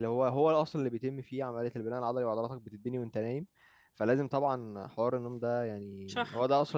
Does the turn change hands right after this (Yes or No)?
No